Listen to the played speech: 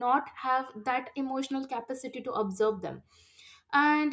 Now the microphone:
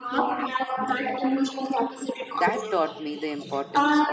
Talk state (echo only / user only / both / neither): both